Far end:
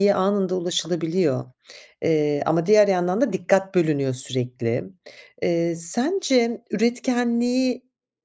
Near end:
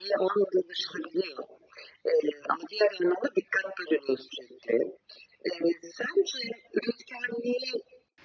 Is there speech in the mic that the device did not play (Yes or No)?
No